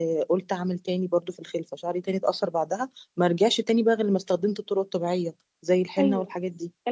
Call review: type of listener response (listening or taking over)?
taking over